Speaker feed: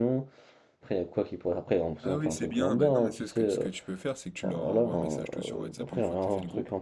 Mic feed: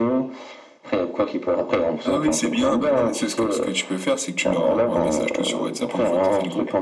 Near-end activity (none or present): none